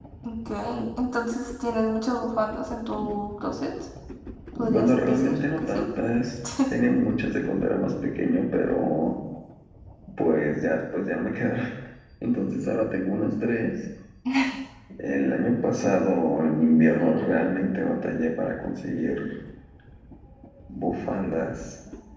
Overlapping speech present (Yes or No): Yes